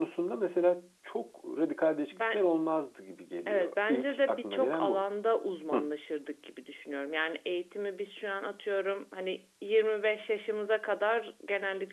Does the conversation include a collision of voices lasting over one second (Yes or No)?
Yes